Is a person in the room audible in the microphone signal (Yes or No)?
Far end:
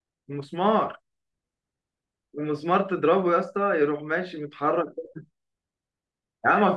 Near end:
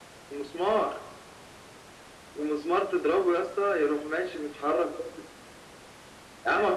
No